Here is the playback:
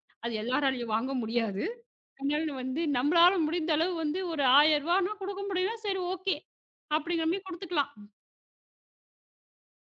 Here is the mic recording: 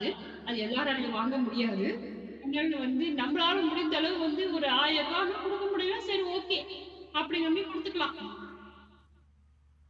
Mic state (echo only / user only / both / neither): echo only